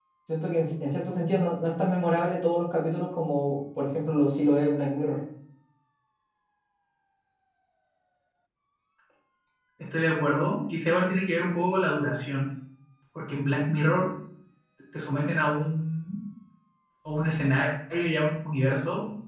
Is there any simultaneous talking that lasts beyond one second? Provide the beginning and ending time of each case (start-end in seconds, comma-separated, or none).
none